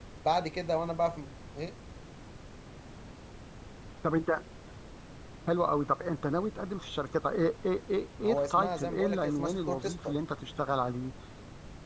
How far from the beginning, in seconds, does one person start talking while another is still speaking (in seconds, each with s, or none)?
8.2 s